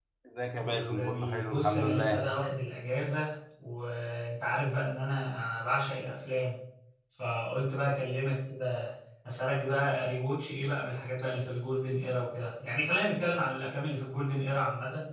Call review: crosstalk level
present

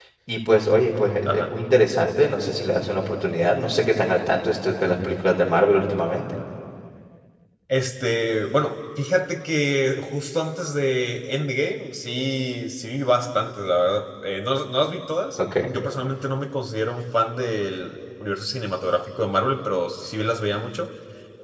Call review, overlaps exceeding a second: none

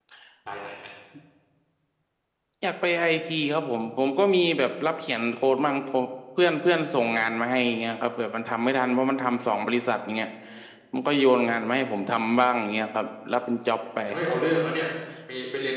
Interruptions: none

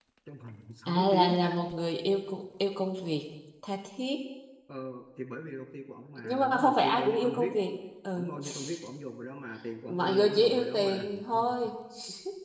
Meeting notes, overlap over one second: present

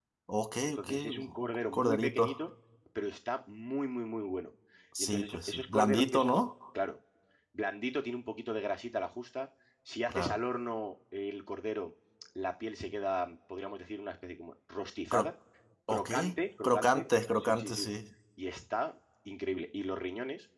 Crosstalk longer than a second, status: present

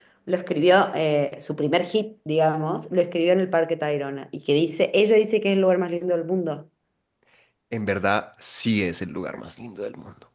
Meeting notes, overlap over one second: none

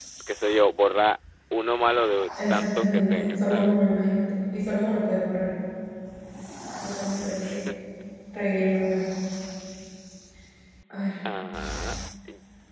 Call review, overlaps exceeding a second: present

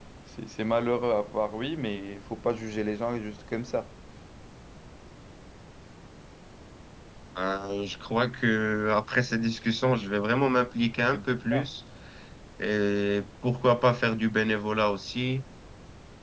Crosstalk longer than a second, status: none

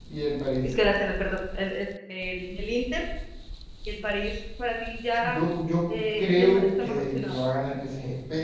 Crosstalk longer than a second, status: present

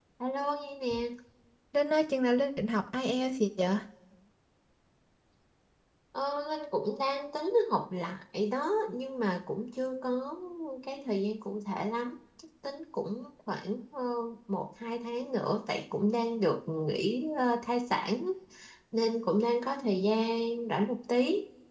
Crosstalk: none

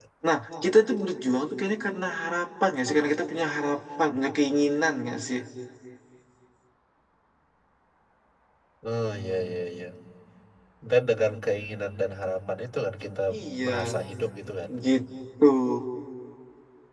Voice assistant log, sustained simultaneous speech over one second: none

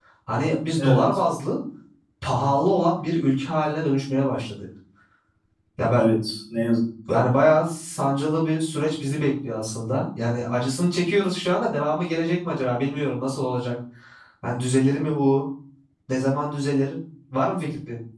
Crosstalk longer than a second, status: none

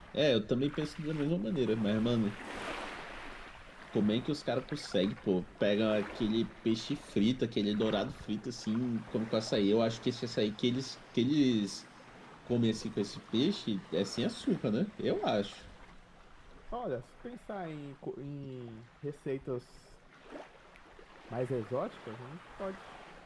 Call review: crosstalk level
none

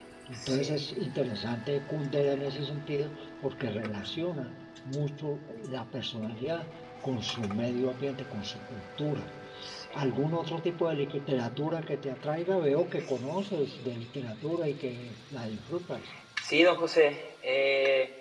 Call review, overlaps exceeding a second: none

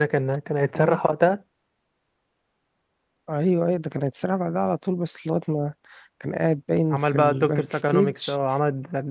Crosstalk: present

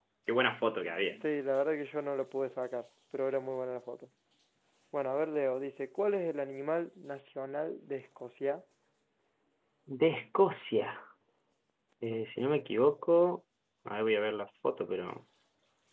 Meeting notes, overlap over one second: none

